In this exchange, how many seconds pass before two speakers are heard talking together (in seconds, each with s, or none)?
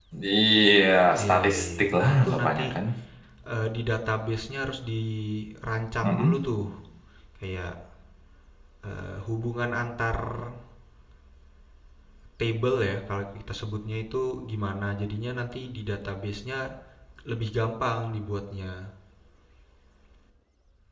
1.2 s